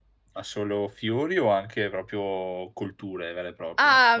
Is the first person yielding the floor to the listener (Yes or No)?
Yes